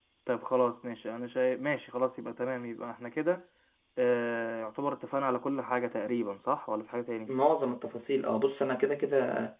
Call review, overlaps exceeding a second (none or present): none